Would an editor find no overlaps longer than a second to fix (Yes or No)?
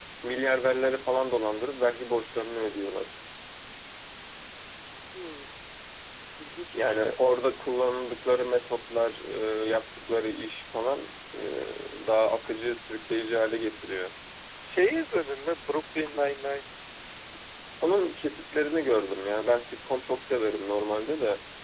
Yes